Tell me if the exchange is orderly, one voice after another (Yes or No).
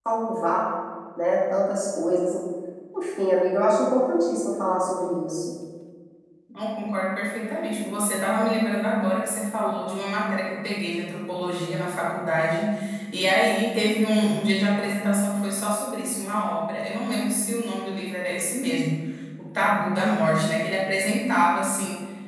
Yes